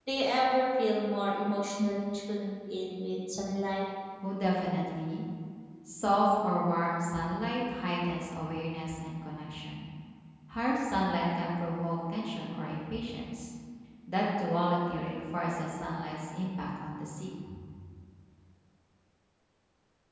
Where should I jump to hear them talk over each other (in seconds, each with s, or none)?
none